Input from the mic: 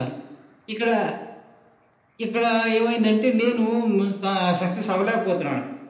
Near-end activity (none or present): none